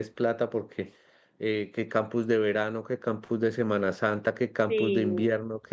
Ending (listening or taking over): listening